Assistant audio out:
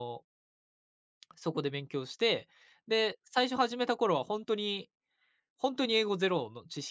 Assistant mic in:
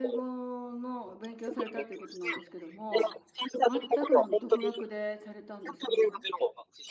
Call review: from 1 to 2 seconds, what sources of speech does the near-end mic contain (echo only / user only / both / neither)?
both